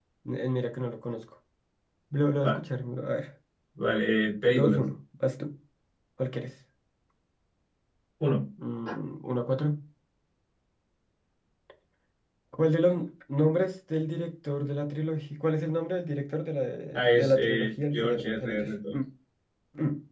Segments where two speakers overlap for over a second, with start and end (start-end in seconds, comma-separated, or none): 17.1-18.9